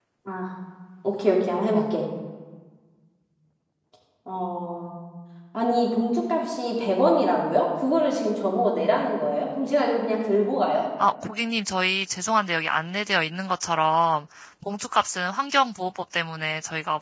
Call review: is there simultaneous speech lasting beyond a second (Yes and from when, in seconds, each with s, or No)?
No